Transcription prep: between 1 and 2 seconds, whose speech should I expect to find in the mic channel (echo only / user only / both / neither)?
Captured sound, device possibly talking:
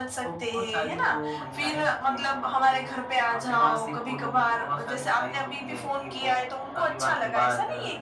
echo only